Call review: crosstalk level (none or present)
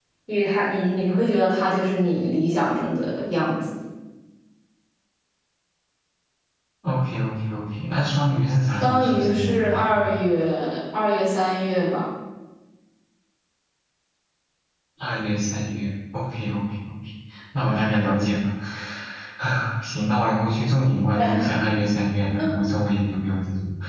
present